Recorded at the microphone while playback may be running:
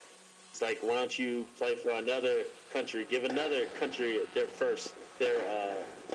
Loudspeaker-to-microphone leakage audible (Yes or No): Yes